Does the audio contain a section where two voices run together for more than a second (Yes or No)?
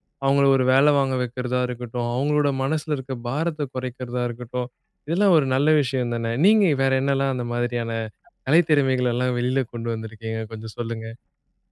No